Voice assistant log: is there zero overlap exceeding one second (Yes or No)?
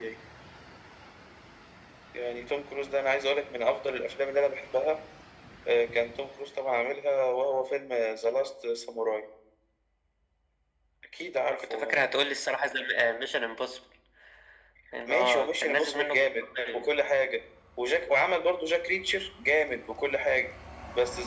No